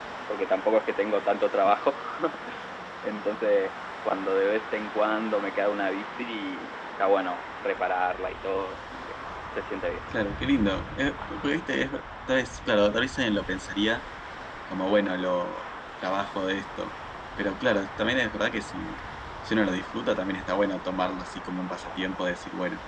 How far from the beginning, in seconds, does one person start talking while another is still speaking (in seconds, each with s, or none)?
none